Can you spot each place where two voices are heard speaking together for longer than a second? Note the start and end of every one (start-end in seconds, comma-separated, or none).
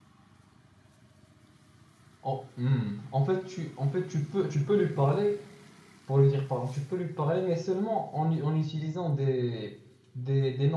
none